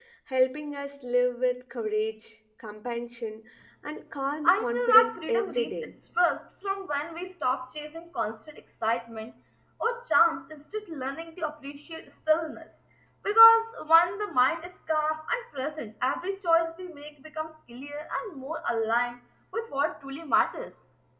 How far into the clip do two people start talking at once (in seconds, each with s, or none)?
4.4 s